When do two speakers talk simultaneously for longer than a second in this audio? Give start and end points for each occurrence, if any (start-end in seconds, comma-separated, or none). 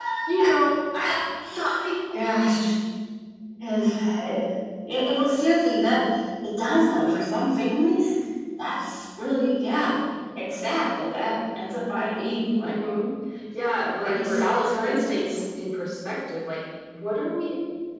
13.8-15.4